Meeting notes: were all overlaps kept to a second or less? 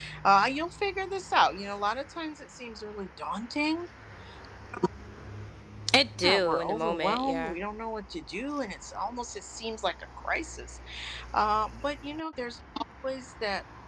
No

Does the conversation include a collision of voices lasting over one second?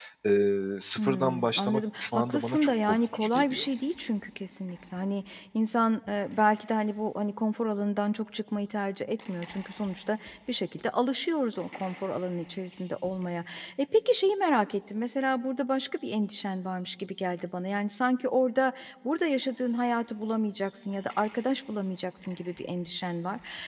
Yes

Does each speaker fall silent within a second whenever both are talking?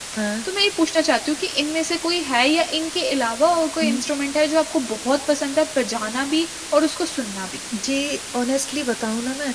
Yes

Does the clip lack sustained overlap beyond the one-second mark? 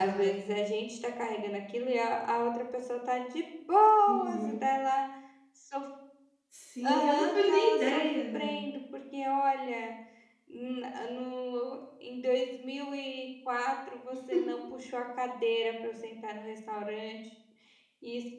No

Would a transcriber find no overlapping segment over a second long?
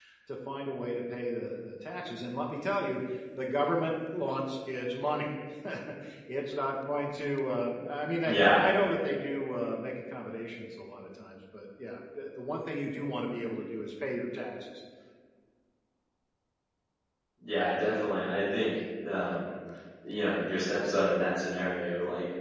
Yes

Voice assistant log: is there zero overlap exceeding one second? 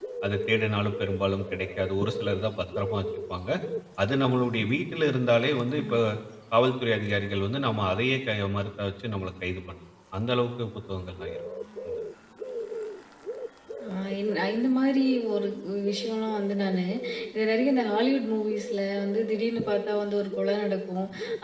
Yes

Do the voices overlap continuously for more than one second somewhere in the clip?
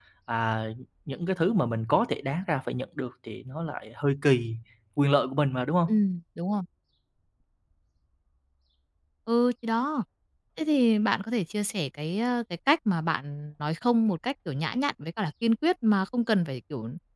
No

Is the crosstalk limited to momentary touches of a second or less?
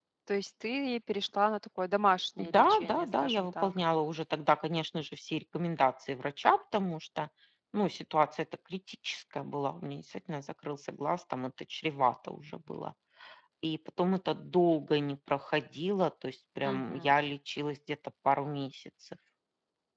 No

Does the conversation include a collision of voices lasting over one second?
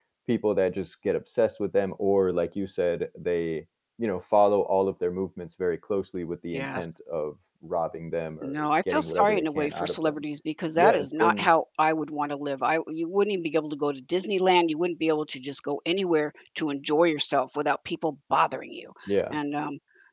Yes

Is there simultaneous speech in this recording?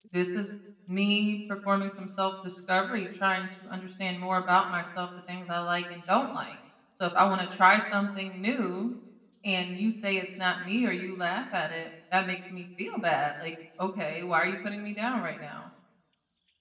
No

